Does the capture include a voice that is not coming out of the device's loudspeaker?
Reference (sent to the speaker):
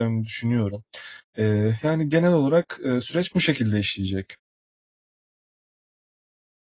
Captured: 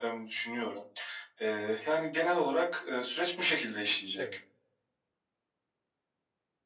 Yes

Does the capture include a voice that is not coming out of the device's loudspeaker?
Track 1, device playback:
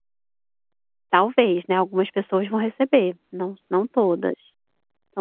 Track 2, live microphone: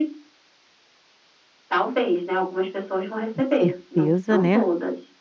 Yes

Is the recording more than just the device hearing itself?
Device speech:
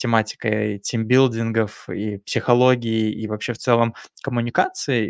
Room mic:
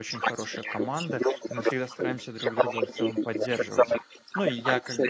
Yes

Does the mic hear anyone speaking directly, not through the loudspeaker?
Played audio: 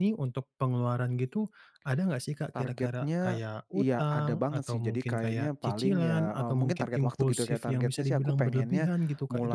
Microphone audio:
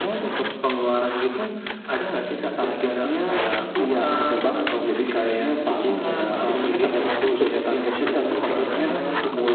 Yes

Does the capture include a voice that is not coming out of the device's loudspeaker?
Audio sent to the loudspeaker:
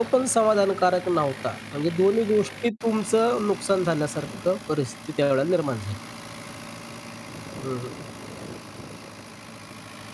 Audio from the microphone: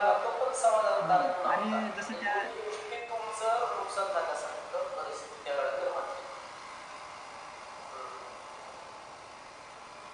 Yes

